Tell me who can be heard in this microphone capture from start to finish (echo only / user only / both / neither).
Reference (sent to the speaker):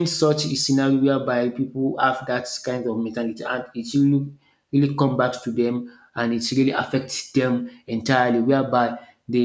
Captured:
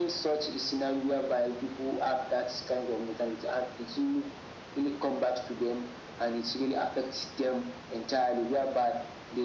echo only